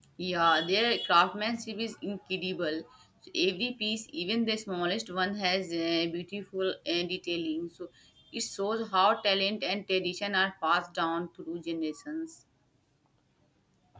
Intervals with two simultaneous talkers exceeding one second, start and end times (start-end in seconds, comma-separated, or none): none